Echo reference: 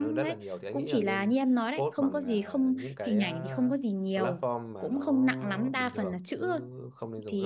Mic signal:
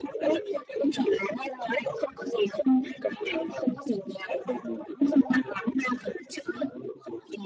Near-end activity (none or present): none